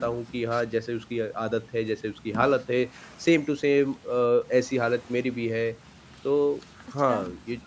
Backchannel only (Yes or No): No